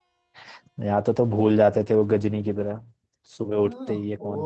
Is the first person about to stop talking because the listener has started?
Yes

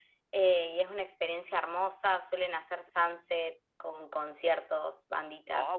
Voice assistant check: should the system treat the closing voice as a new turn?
Yes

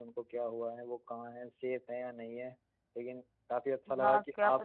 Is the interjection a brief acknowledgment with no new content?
No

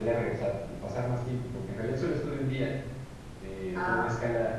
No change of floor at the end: Yes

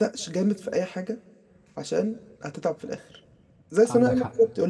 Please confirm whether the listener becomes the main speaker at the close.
No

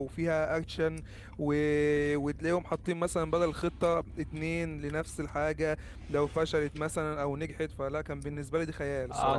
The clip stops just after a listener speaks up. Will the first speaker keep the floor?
No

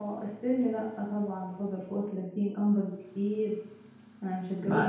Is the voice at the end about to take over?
Yes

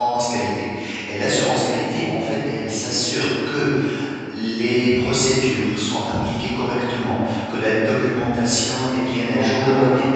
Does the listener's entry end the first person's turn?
Yes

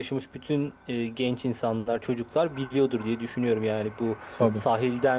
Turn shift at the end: No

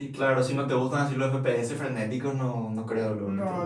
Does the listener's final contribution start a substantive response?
Yes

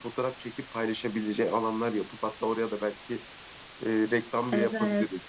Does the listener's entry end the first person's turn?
Yes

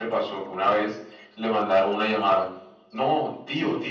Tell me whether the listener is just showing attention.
Yes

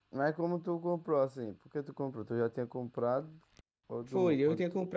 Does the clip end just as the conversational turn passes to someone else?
Yes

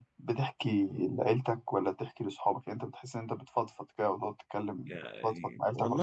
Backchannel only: No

